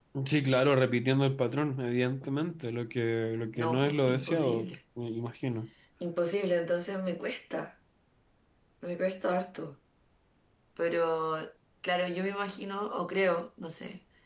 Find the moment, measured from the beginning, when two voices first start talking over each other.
3.6 s

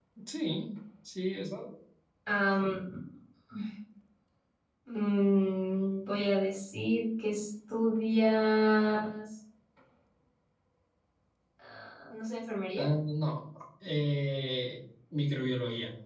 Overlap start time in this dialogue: none

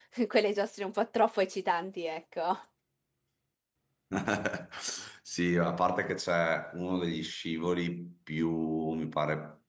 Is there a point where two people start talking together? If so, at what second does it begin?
none

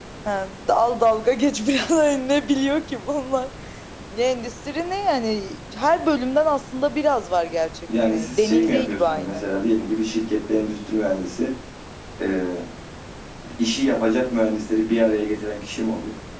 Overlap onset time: 7.9 s

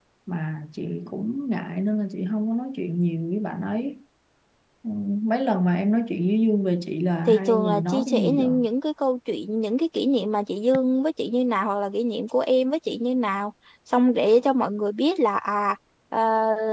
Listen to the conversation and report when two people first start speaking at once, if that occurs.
7.3 s

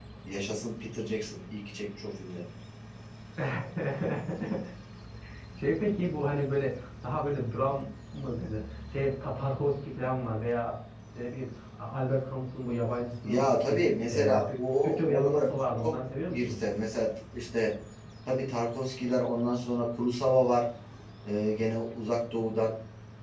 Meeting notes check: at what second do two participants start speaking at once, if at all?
13.2 s

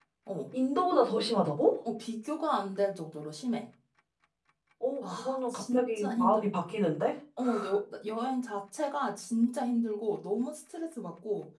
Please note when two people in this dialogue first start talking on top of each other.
5.1 s

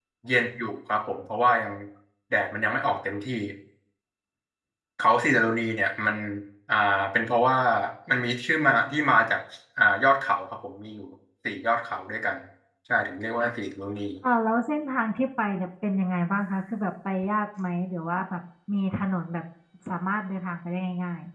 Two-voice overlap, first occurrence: none

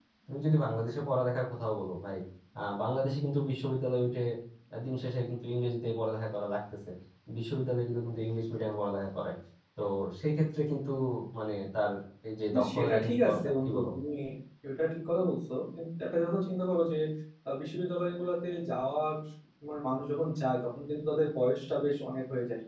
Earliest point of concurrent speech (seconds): 12.5 s

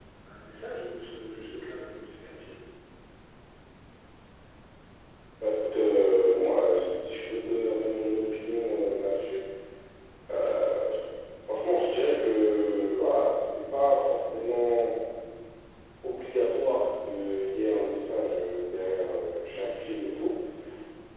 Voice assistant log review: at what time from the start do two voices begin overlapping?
none

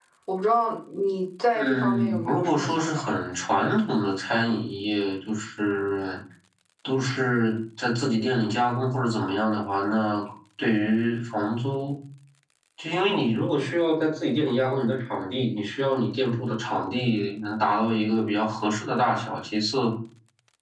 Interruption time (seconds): 1.5 s

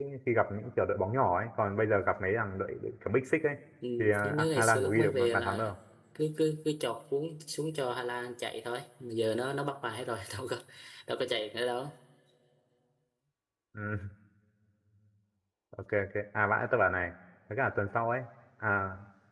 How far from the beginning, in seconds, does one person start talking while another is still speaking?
4.0 s

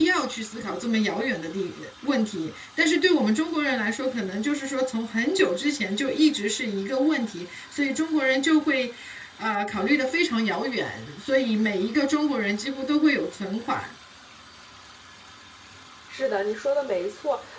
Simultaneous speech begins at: none

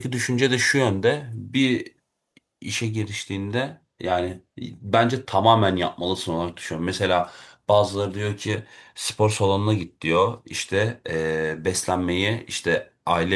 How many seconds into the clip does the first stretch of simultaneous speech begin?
none

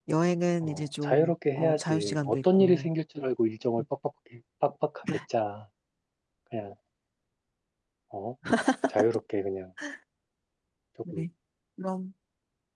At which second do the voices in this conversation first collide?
0.6 s

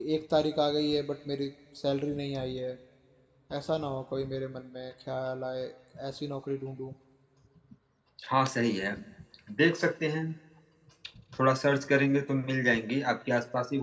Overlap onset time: none

